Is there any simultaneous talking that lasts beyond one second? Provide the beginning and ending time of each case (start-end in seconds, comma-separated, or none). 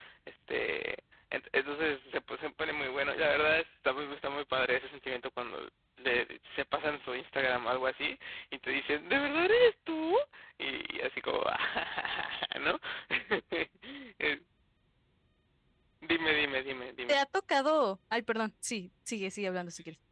none